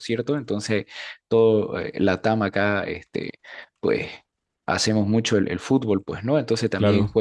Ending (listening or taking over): listening